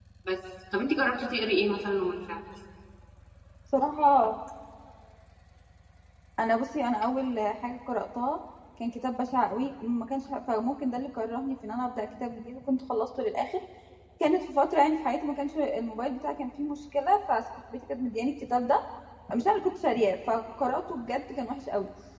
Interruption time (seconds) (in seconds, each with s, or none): none